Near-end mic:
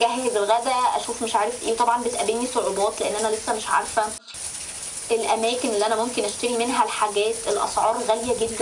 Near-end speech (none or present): none